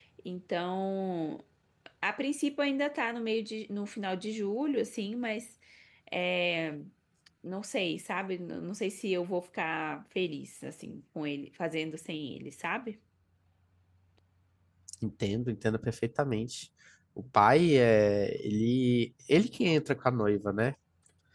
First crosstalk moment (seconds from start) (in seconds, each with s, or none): none